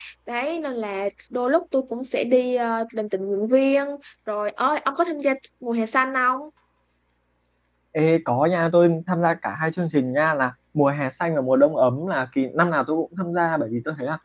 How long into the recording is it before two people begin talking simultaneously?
none

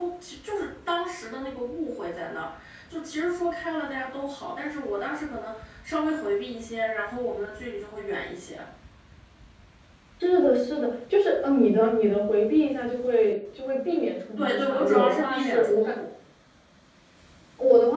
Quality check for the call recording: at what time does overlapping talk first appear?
14.4 s

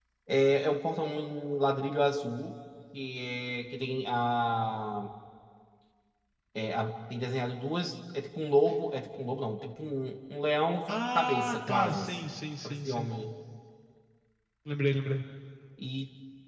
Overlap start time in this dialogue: 10.9 s

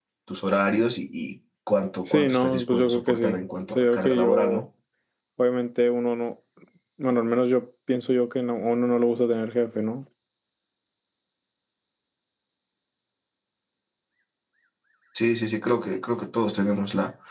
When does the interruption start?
2.1 s

